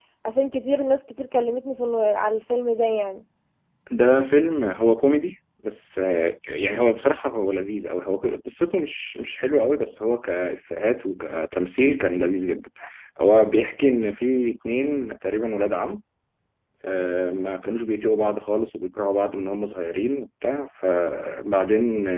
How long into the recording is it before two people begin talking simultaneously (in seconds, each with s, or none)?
none